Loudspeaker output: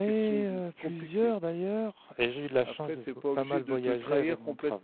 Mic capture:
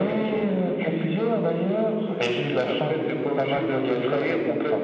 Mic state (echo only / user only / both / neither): echo only